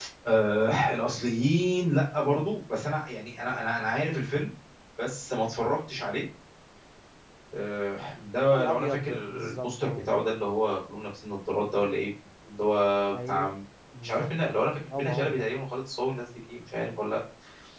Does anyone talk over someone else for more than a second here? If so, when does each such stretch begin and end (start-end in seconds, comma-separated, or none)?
8.5-10.2, 14.0-15.4